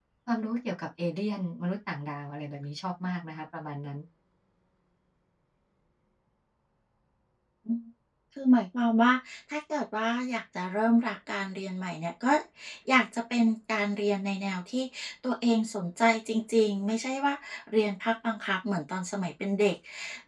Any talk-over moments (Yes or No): No